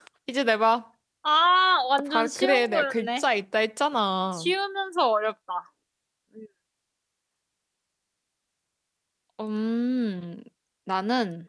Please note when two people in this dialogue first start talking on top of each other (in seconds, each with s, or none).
2.0 s